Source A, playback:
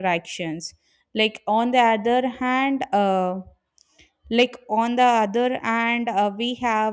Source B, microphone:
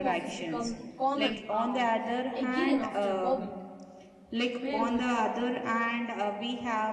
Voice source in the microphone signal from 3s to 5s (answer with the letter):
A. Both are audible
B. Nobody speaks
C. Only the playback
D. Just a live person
A